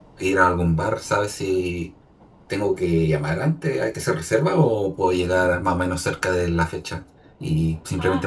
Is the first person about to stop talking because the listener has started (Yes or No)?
Yes